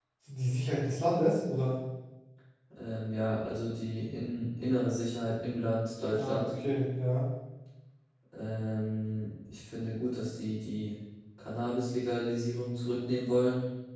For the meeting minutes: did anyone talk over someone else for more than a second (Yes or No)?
No